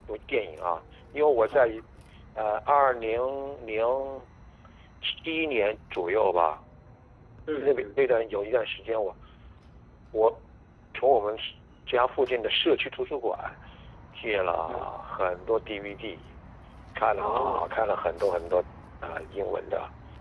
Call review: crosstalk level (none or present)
present